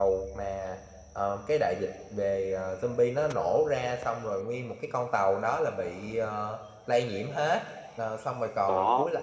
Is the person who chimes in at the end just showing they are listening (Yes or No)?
Yes